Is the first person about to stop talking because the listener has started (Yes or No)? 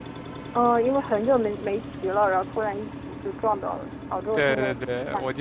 Yes